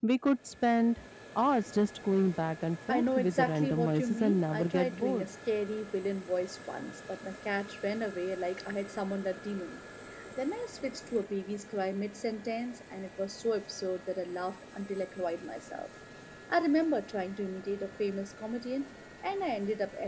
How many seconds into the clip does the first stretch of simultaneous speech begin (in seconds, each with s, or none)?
2.9 s